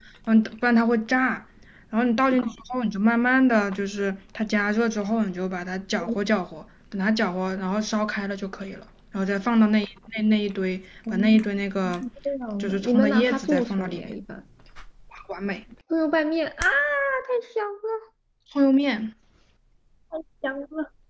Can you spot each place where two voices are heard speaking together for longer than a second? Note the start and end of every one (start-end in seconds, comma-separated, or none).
12.6-14.1